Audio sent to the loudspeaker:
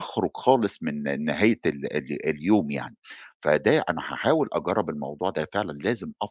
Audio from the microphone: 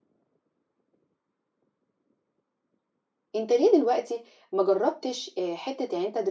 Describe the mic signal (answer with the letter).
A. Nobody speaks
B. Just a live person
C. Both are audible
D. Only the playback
B